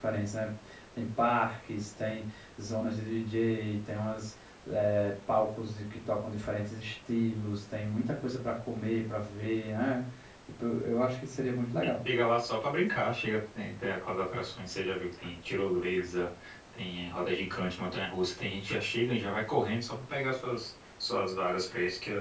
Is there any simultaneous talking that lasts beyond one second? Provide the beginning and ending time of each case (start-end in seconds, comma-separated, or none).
none